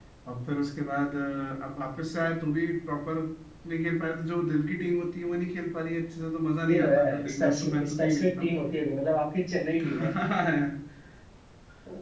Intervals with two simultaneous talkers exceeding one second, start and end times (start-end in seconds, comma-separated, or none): 6.7-8.5